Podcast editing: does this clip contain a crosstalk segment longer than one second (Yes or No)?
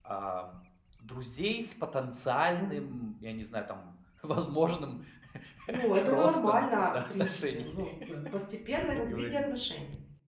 Yes